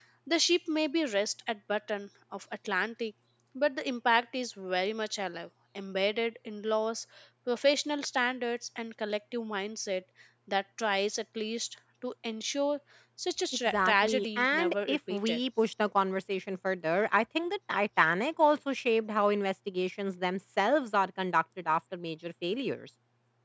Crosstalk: present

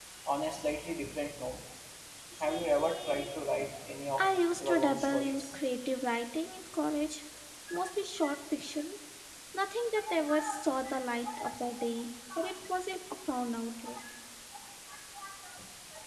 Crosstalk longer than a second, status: present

